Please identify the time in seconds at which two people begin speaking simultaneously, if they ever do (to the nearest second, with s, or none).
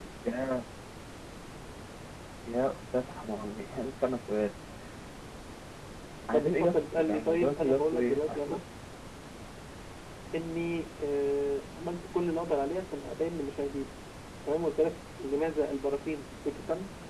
6 s